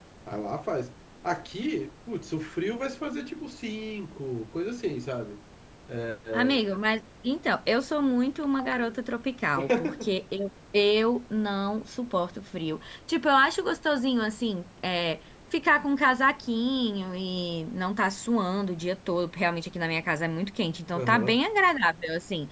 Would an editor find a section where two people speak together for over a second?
No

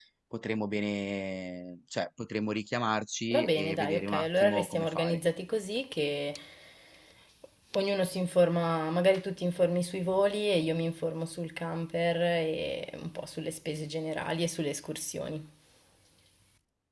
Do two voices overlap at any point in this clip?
Yes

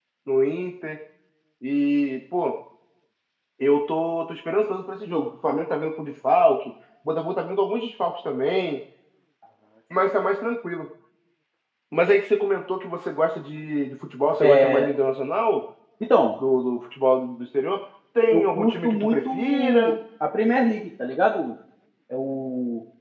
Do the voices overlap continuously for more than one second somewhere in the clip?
Yes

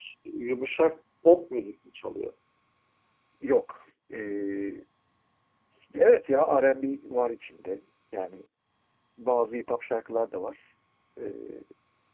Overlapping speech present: No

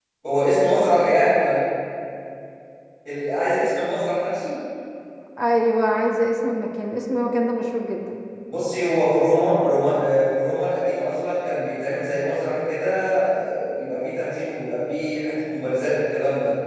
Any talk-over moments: No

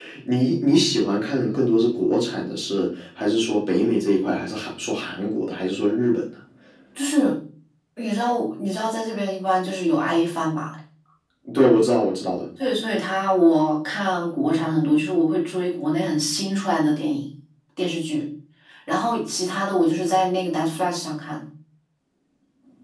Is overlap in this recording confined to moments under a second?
Yes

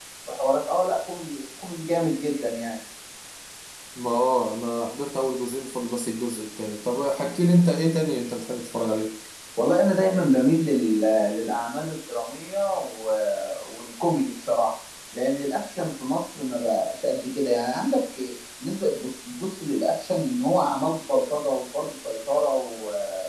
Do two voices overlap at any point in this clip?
No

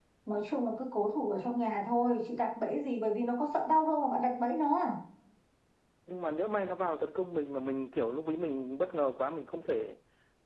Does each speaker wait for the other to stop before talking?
Yes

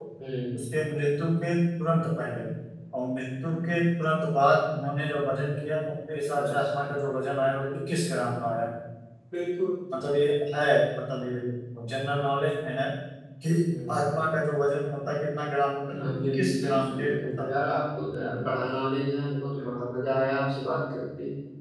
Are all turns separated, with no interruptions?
No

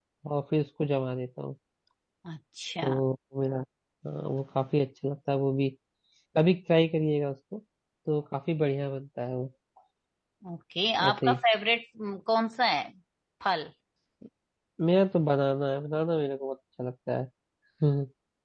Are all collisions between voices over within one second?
Yes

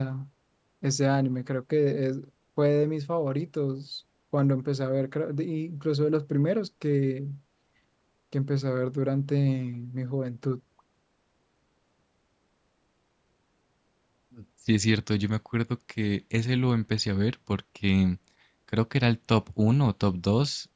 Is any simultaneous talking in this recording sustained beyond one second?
No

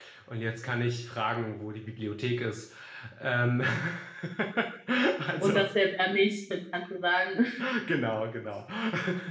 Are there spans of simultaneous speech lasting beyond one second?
No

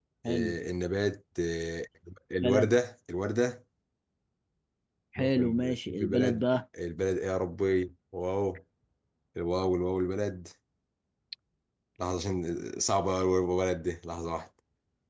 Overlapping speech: Yes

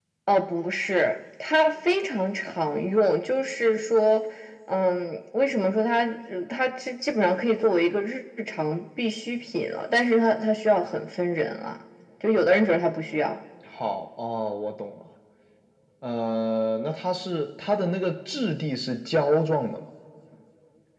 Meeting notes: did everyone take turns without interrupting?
Yes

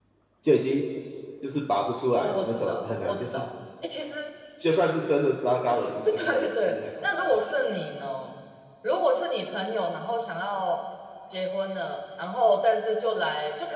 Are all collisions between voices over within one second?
No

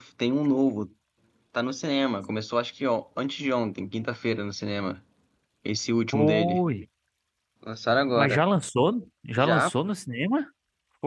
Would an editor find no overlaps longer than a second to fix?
Yes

